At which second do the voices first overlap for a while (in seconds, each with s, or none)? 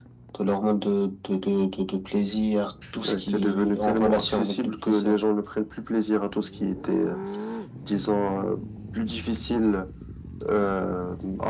3.0 s